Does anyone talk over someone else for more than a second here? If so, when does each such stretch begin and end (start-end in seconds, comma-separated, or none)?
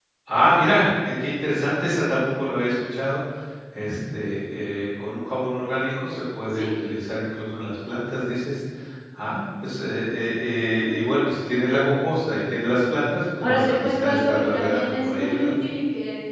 13.4-15.5